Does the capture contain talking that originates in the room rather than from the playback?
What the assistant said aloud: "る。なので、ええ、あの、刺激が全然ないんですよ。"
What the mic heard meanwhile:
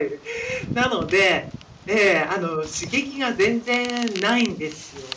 No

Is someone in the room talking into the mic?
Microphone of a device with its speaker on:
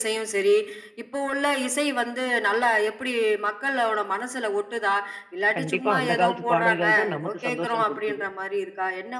Yes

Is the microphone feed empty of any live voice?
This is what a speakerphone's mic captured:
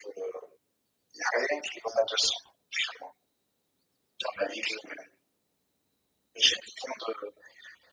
Yes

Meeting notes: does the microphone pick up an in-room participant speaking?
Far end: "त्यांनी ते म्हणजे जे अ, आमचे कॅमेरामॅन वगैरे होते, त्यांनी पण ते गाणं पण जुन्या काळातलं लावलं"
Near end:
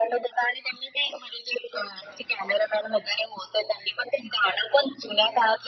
No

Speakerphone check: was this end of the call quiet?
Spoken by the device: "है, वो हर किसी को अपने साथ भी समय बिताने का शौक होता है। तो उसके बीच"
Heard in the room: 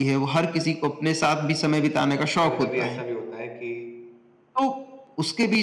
No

